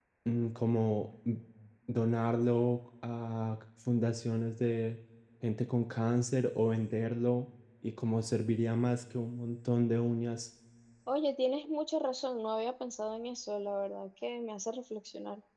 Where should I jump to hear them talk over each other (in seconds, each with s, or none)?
none